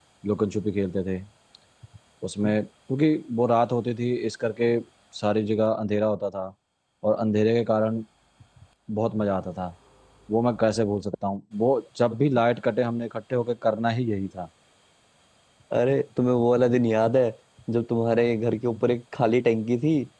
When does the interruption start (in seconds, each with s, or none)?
none